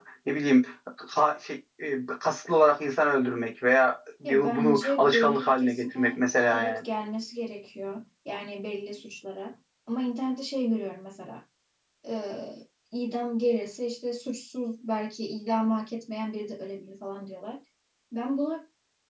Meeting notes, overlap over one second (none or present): present